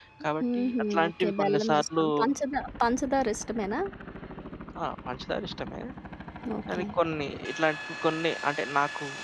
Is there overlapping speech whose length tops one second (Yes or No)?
Yes